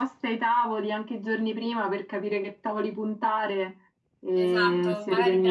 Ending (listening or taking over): taking over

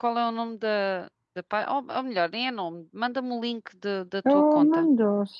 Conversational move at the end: taking over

